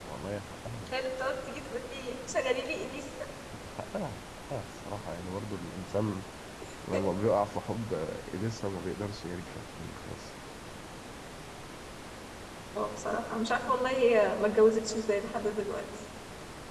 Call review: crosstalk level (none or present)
none